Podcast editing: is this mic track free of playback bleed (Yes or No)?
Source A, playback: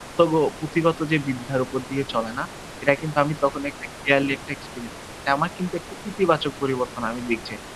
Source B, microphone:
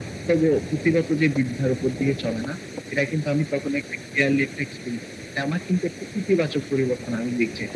No